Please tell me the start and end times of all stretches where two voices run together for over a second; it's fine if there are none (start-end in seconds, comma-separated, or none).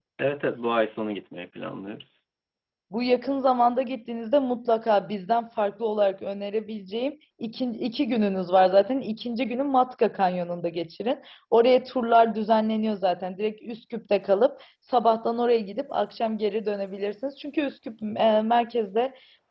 none